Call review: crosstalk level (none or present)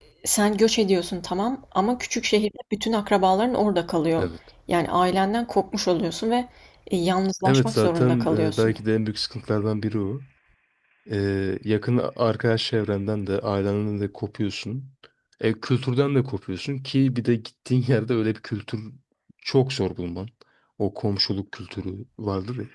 present